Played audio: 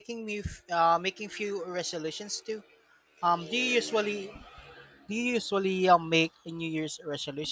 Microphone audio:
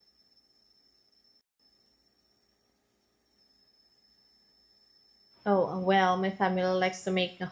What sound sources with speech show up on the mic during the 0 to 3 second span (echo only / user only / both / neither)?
neither